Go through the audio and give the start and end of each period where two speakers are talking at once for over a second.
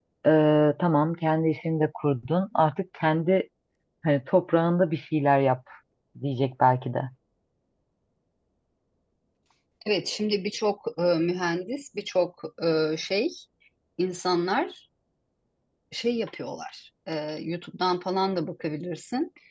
none

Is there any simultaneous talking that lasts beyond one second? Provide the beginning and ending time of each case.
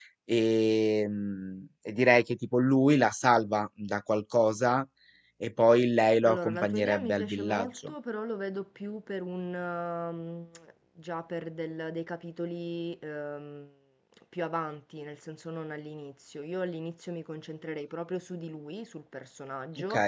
6.3-7.9

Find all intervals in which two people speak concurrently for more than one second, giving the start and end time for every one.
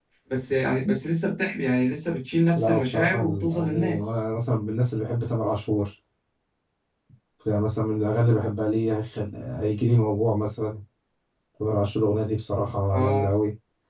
2.6-4.2

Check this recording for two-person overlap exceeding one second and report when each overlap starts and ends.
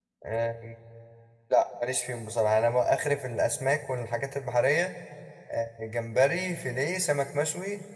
none

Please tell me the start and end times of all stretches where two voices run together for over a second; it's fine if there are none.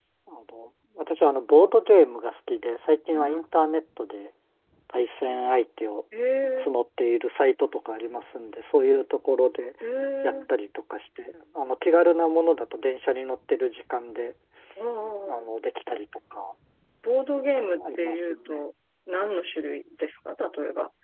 17.4-18.6

